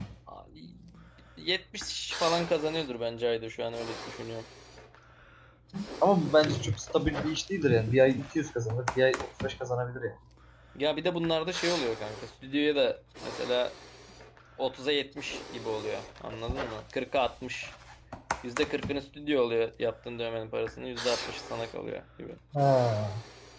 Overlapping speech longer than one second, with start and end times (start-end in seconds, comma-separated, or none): none